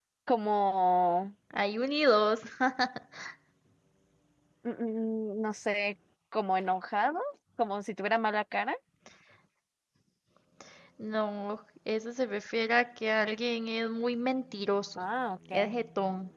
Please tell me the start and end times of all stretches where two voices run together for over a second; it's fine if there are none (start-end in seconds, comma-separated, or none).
none